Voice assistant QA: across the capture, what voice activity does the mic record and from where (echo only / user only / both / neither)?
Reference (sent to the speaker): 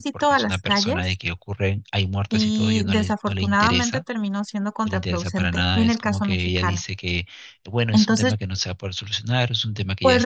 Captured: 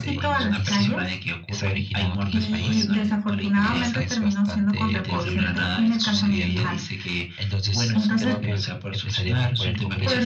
both